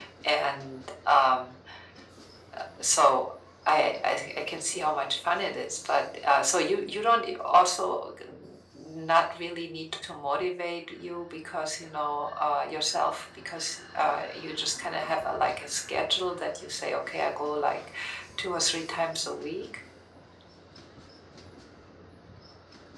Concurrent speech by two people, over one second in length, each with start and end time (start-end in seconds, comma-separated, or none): none